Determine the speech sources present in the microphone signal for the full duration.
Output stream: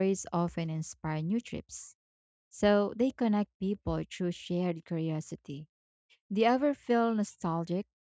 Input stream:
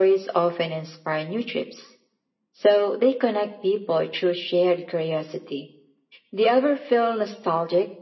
echo only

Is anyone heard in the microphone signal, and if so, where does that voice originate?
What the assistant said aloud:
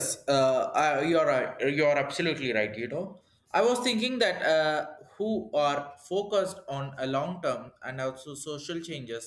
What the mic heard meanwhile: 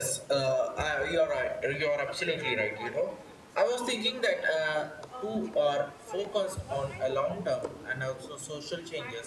both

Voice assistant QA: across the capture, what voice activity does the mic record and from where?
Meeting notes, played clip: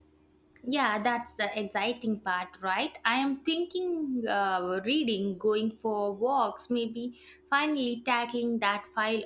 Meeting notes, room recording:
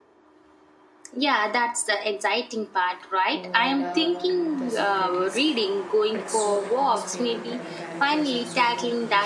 both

